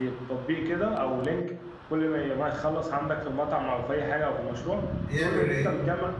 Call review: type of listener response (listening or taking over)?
listening